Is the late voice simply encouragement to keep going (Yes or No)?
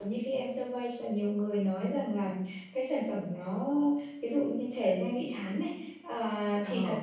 Yes